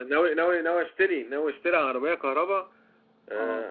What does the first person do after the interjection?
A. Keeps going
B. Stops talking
A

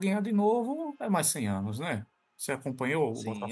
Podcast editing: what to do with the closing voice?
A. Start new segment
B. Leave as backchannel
A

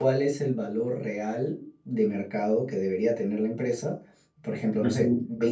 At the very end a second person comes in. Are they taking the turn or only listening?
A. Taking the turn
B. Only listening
B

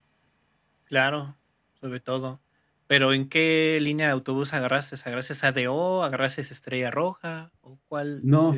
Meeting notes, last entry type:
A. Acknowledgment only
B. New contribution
B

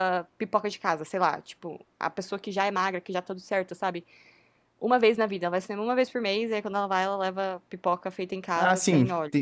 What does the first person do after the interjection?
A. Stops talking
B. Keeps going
A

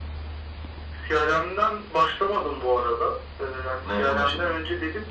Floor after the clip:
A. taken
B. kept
B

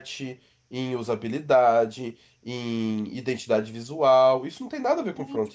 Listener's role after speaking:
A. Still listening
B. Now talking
B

